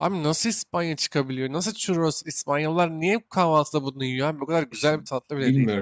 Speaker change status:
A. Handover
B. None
A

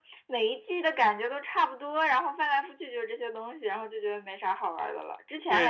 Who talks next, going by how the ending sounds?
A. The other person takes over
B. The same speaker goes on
A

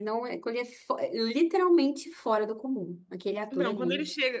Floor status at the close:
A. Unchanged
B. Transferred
B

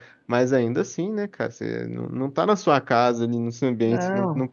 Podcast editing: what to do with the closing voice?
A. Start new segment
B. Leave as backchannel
B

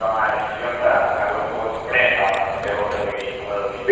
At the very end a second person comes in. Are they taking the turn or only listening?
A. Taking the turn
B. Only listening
A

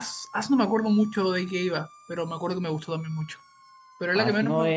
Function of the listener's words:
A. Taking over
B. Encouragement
A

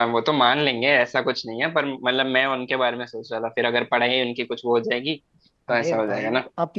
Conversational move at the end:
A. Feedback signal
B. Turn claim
B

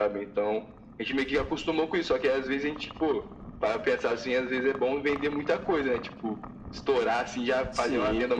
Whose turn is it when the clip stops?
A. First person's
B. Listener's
A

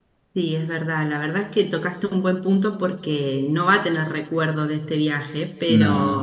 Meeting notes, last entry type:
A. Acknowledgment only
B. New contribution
A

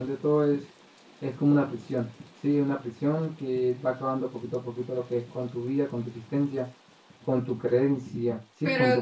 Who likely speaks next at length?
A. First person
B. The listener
B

